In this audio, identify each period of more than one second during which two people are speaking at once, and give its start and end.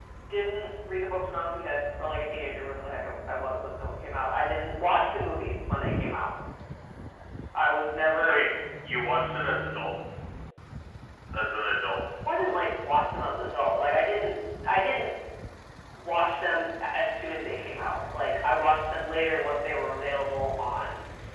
none

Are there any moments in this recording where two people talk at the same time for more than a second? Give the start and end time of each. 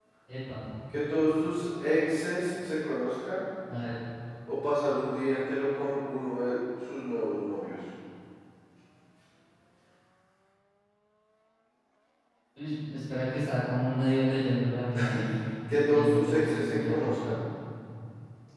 15.7-17.3

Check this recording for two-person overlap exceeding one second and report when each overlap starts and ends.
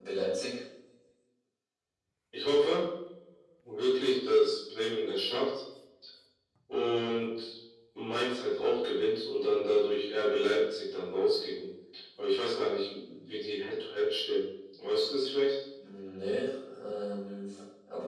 none

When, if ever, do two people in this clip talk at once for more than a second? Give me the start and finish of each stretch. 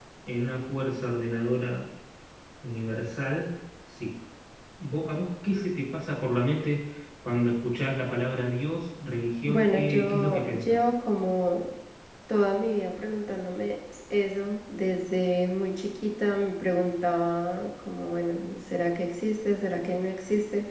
9.5-10.8

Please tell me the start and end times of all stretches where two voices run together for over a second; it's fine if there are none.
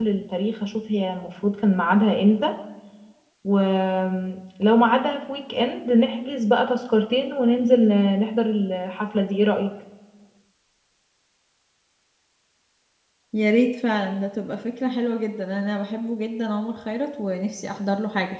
none

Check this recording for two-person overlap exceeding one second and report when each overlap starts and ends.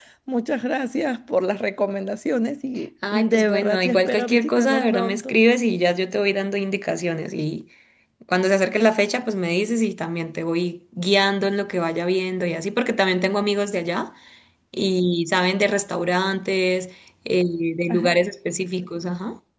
3.1-5.3

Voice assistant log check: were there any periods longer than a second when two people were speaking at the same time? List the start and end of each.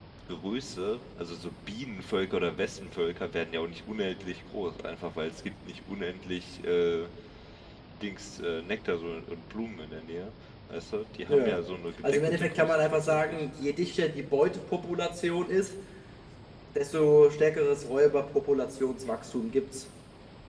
12.0-13.4

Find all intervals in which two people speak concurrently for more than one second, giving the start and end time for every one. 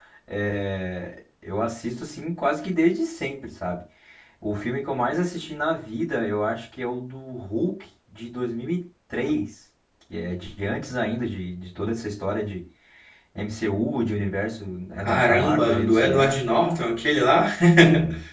15.0-16.4

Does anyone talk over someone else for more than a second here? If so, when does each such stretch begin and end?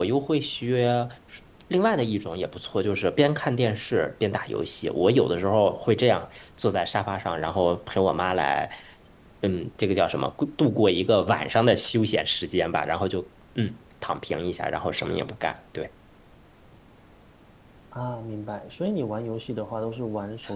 none

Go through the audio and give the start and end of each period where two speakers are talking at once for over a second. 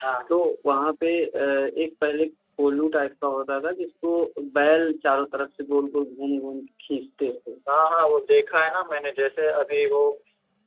none

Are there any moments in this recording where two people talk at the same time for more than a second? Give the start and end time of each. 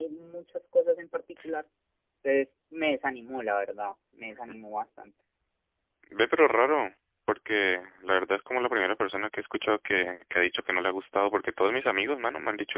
none

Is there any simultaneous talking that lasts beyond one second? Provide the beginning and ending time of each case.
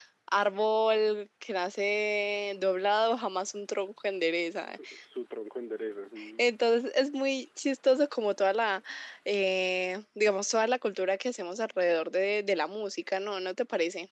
none

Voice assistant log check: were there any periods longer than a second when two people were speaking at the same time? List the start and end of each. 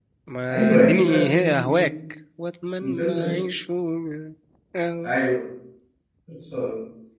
0.5-1.9

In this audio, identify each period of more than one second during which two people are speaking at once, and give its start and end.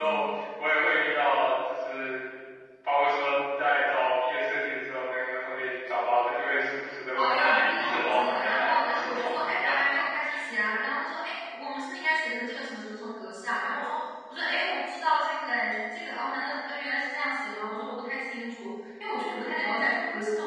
7.1-9.8

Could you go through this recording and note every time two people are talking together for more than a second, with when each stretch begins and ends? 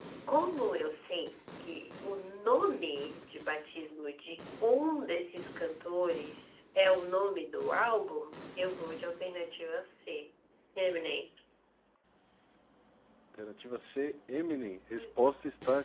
none

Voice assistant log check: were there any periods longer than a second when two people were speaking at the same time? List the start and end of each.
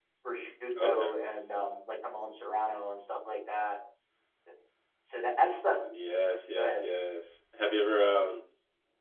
none

